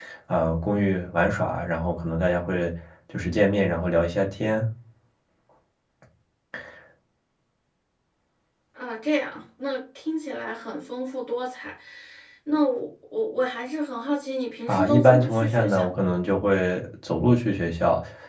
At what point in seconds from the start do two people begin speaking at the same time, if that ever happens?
14.7 s

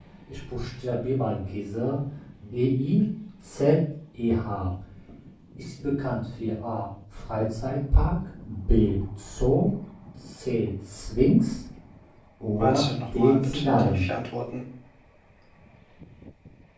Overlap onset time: 12.6 s

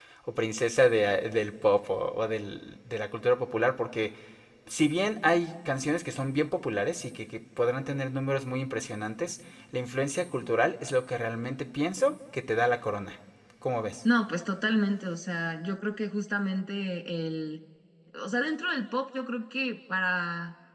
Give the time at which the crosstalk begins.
none

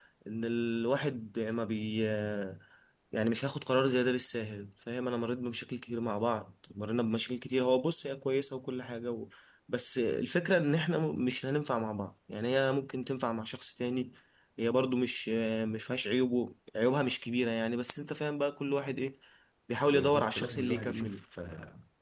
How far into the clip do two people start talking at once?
19.9 s

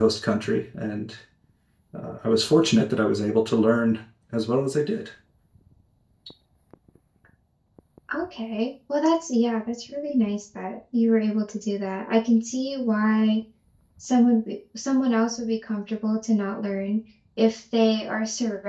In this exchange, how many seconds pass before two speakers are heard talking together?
none

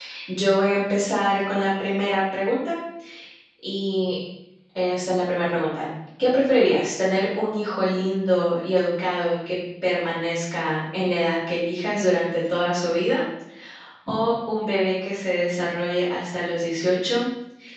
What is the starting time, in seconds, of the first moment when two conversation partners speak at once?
none

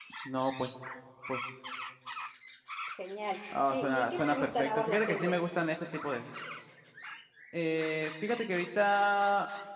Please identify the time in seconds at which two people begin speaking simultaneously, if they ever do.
3.7 s

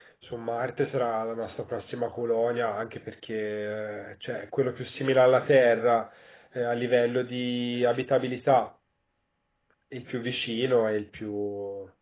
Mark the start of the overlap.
none

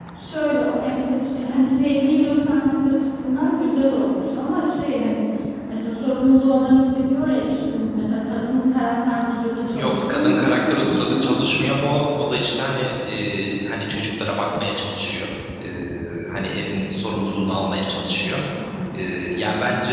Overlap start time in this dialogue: 9.7 s

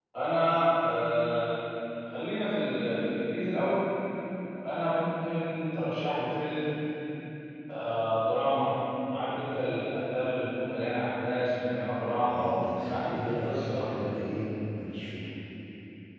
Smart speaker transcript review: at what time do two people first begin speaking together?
12.2 s

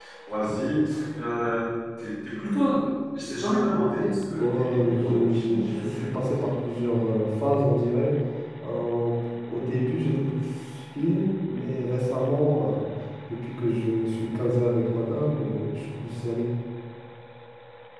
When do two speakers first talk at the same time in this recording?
4.3 s

